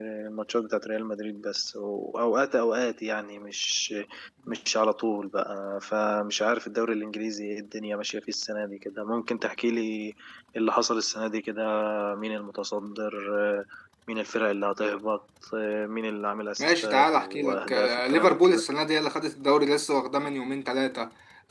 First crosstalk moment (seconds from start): 16.6 s

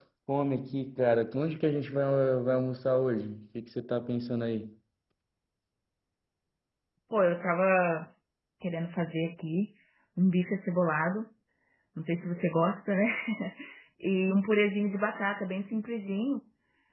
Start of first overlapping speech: none

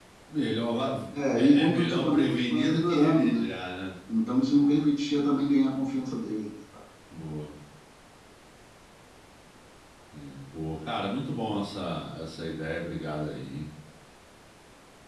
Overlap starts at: 1.3 s

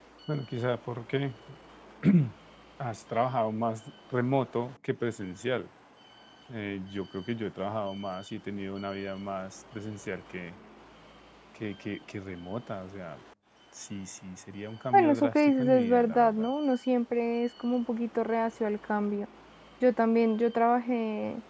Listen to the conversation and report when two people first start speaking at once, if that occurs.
14.9 s

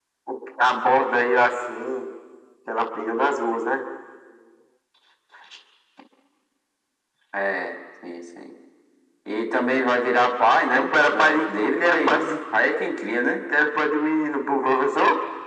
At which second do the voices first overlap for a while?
10.7 s

